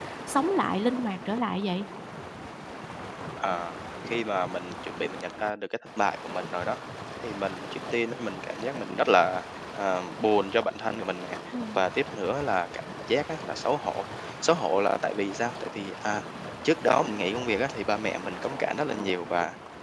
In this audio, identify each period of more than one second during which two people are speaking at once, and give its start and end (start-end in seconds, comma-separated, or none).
none